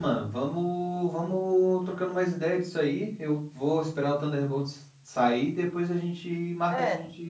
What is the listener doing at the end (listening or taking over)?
taking over